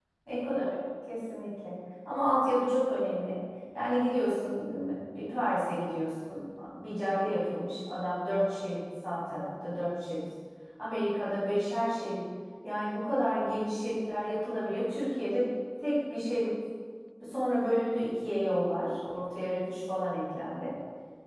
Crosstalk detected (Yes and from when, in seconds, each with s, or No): No